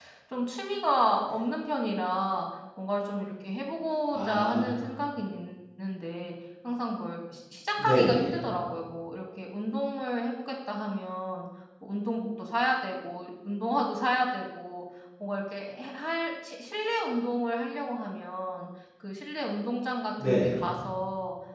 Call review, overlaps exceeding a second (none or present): none